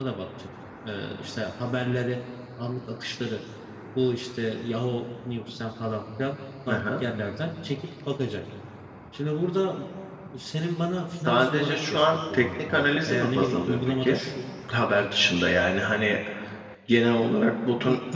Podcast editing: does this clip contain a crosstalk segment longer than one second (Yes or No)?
Yes